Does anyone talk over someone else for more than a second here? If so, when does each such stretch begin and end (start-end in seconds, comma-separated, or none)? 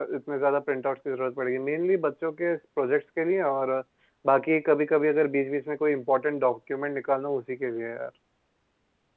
none